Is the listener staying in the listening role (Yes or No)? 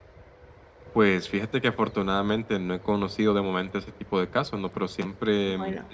Yes